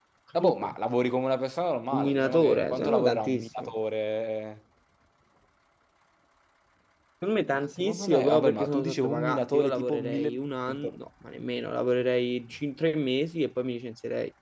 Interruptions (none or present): present